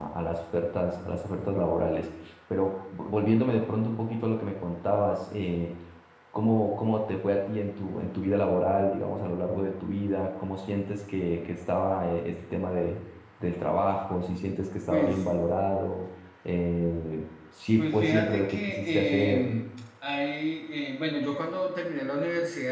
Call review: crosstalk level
present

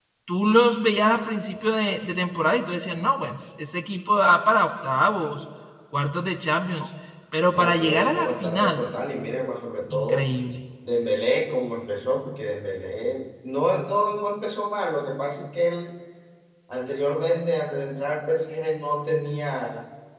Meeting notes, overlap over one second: present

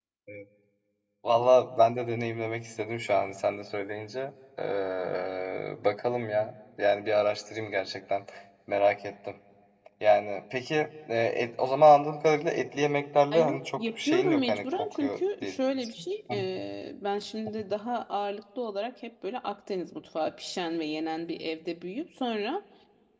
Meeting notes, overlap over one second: present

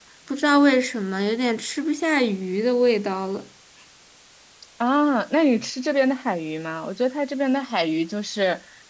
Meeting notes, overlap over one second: none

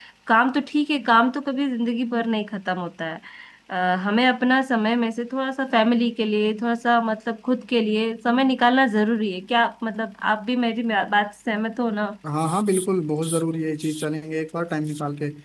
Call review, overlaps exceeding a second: none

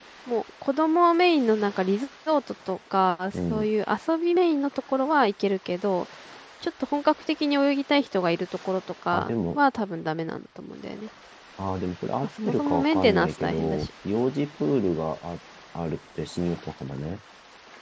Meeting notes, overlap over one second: present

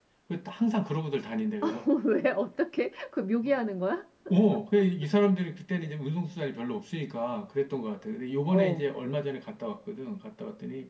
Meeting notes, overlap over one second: none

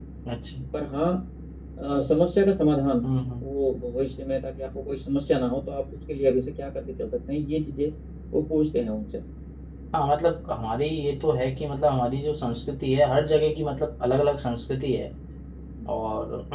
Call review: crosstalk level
none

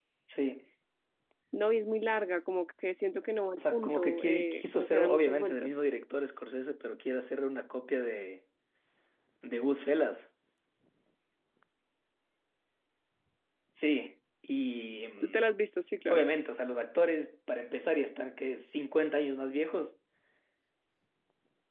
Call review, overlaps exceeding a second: present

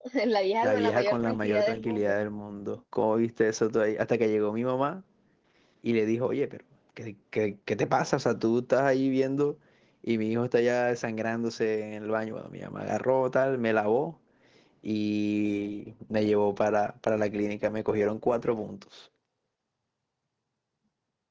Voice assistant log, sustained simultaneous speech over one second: present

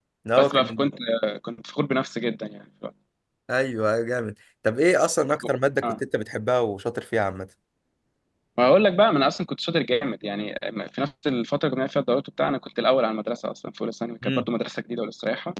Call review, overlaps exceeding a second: none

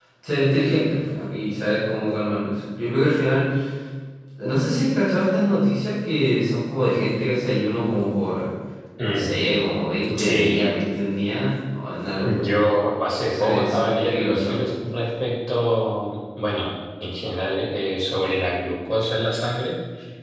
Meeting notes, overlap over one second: present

